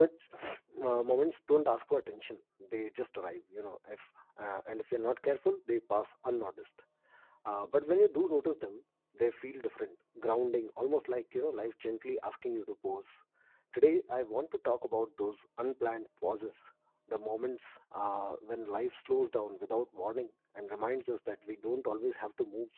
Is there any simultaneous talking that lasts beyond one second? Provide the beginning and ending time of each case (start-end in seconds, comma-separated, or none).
none